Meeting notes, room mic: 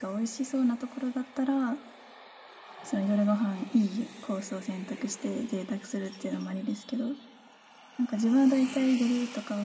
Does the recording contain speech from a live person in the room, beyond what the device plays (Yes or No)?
Yes